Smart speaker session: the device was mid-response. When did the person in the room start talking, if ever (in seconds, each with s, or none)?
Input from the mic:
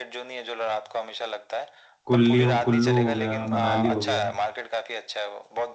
2.0 s